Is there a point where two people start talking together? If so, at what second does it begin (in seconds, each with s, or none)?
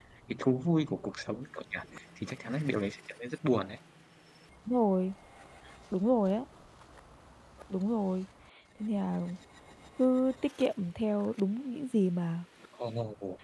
none